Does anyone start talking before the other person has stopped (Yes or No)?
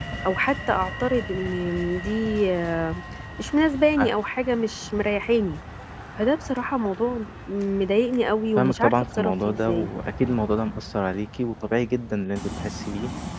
Yes